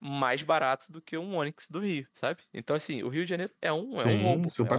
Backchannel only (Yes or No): No